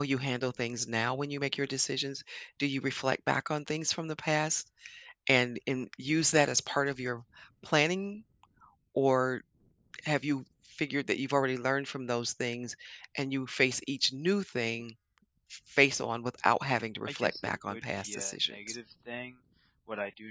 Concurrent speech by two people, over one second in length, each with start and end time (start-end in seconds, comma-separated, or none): 17.1-18.8